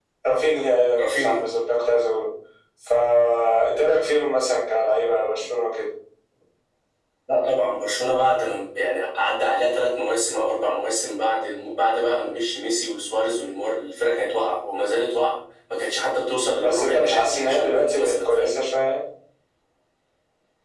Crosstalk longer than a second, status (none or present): present